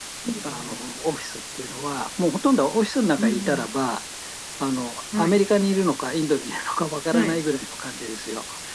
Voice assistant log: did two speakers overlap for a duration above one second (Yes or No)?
No